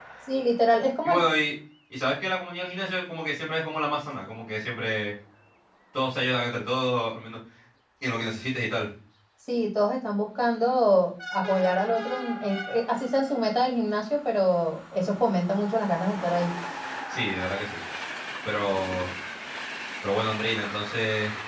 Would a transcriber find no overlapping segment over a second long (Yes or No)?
Yes